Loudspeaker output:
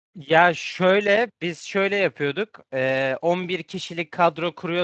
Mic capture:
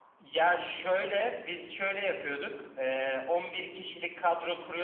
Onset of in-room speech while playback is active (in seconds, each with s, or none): none